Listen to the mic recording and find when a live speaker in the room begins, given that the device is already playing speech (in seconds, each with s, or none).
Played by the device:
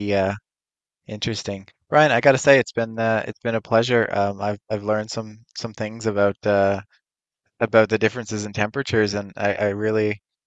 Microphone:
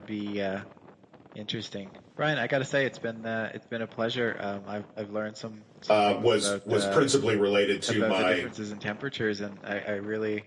5.9 s